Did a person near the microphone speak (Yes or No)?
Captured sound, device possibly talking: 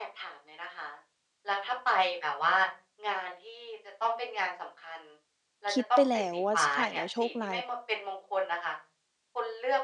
Yes